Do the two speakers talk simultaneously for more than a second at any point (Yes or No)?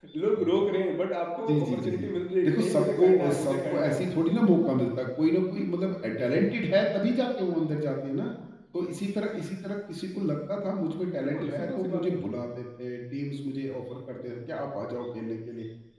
Yes